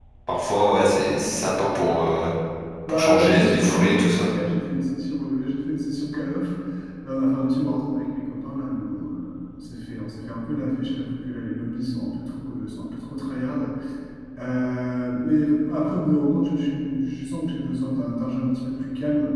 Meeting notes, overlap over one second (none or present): present